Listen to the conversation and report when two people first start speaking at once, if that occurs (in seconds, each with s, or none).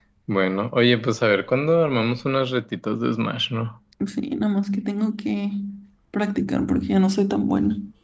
none